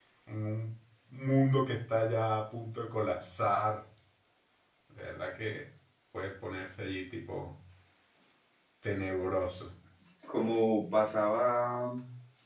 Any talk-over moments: No

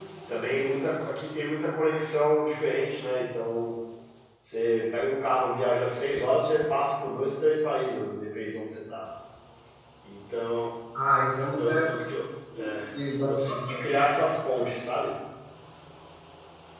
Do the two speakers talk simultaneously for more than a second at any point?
No

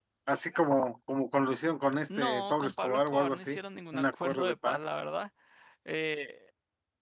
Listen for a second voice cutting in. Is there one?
Yes, from 2.1 s

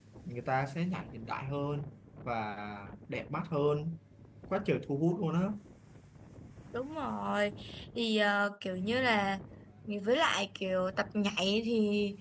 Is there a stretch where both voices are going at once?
No

